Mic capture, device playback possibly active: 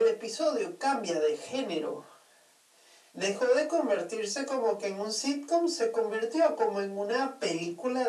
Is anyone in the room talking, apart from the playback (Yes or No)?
No